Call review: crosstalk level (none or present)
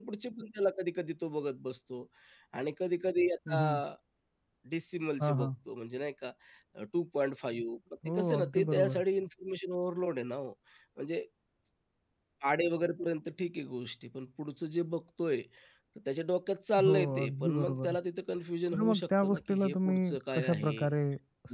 present